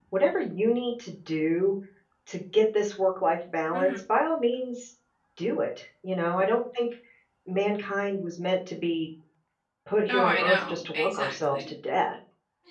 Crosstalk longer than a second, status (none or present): present